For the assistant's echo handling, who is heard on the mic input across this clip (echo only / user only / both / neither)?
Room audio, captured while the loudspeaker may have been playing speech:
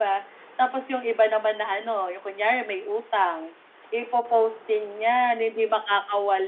echo only